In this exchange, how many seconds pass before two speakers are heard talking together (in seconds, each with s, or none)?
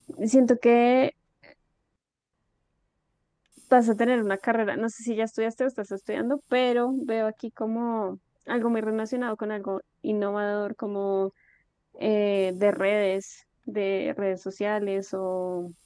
none